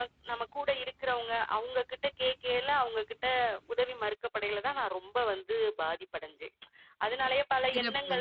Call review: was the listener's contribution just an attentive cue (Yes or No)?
Yes